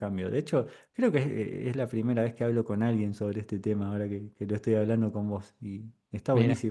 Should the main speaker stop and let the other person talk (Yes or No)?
No